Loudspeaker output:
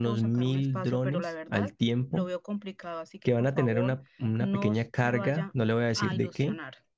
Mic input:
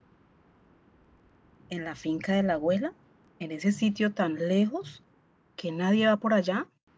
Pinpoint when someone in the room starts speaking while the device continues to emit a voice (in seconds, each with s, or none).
1.7 s